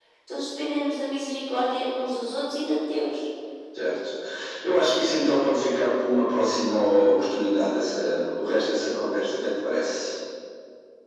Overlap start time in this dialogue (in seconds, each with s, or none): none